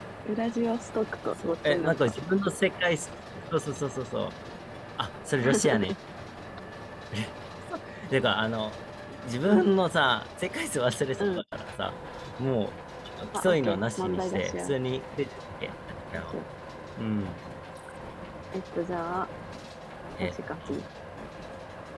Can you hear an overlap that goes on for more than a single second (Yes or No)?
Yes